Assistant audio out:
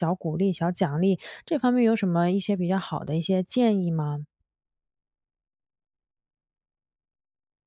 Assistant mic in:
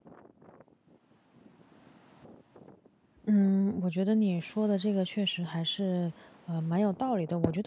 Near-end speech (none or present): present